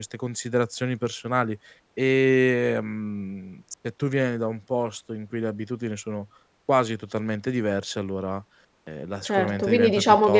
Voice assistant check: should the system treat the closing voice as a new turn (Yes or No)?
Yes